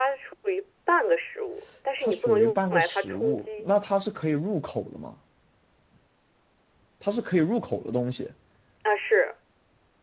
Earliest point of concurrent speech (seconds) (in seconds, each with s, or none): 2.0 s